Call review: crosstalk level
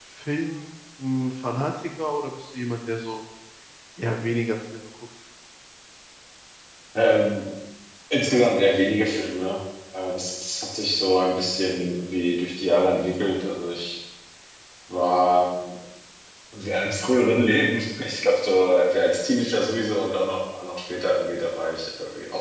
none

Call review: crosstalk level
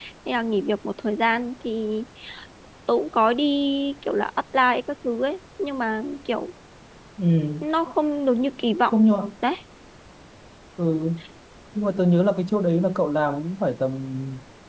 none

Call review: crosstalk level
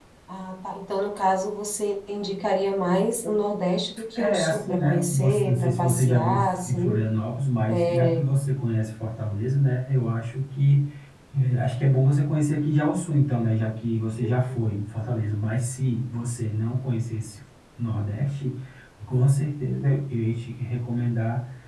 present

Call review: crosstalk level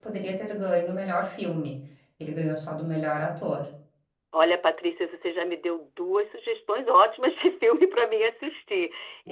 none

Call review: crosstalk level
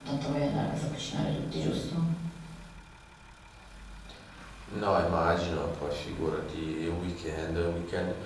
none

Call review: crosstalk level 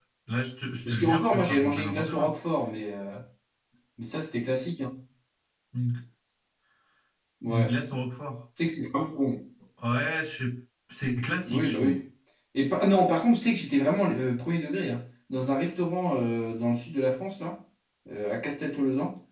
present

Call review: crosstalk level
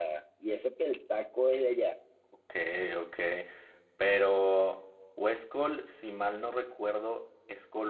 none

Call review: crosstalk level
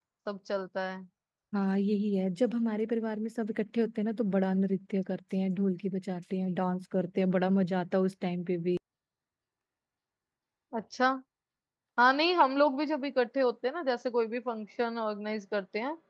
none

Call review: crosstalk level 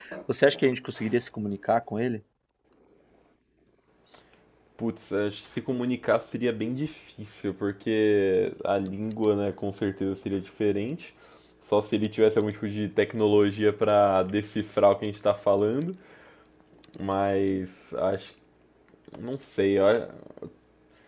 none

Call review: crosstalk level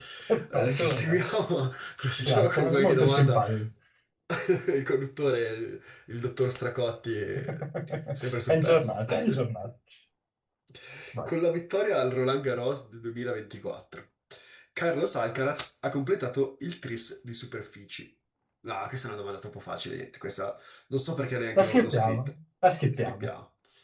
present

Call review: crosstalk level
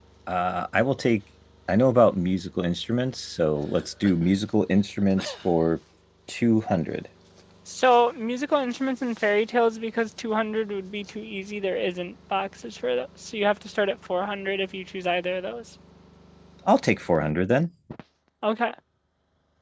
none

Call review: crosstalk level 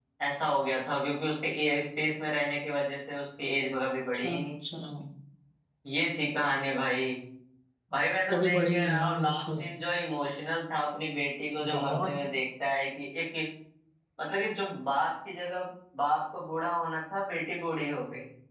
present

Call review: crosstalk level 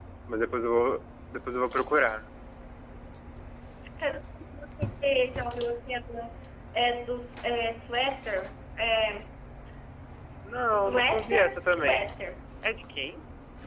present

